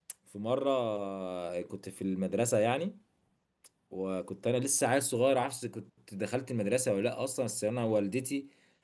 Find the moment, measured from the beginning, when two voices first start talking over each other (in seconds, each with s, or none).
none